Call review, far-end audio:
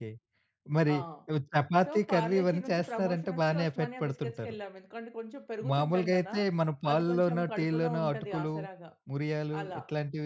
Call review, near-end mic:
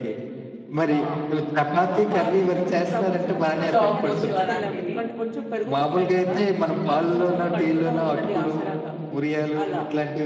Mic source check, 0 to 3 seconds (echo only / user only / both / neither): echo only